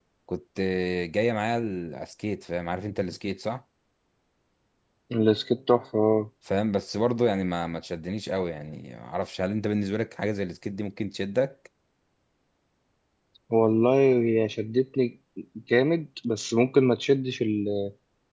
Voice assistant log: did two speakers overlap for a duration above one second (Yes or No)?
No